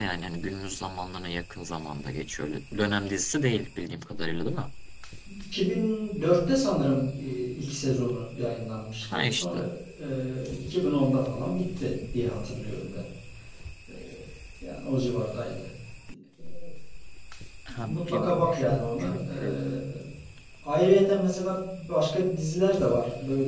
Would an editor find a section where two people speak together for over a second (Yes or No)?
Yes